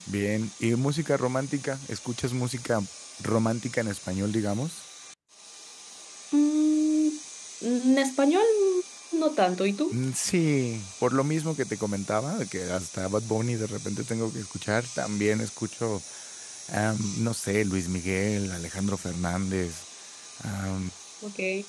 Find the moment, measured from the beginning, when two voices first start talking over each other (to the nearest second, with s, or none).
none